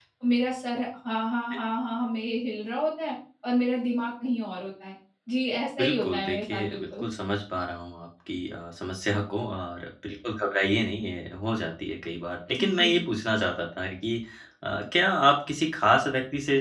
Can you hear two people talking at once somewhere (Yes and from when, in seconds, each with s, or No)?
Yes, from 5.8 s